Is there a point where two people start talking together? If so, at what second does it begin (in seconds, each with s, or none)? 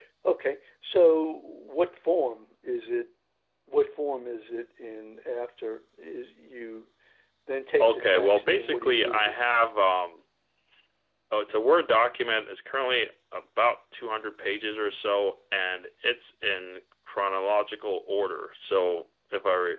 7.8 s